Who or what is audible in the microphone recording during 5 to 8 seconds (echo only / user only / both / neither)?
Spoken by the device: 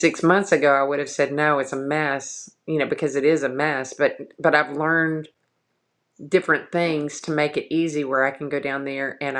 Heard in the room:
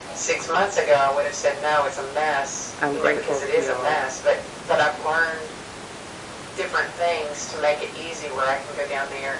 echo only